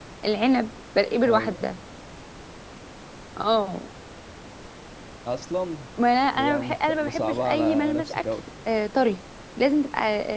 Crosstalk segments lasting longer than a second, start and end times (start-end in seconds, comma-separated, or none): 6.3-8.2